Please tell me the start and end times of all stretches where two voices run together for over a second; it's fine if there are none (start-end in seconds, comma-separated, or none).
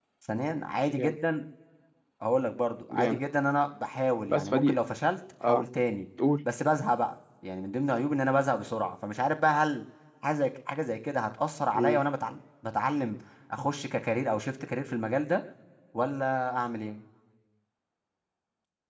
none